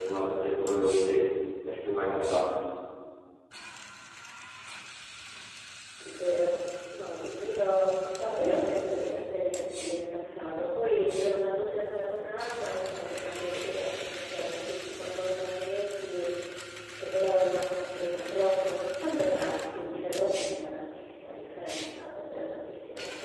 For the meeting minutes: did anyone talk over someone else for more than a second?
No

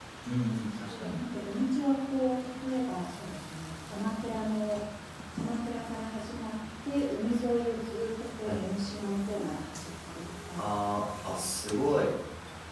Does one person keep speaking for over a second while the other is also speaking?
No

